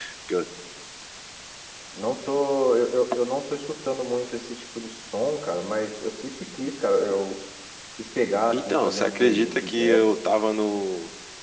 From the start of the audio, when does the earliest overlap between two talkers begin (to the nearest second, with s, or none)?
9 s